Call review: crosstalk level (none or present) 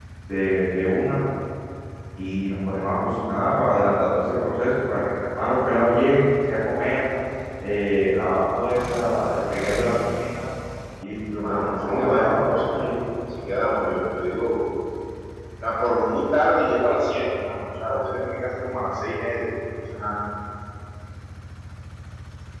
present